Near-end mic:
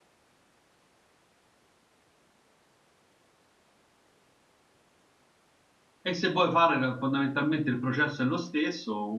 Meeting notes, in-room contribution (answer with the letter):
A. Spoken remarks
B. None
A